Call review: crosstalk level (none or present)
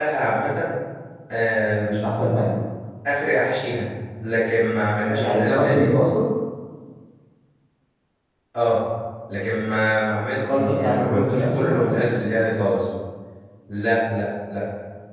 present